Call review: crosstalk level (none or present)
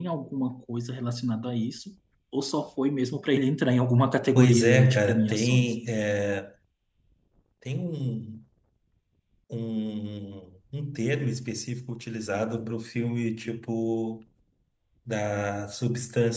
present